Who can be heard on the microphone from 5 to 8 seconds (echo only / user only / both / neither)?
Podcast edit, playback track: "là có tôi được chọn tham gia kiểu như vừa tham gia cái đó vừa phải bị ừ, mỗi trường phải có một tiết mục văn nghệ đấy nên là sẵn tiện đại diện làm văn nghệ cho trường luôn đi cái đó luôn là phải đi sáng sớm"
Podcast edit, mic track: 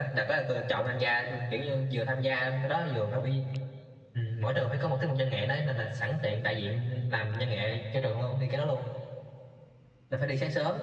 echo only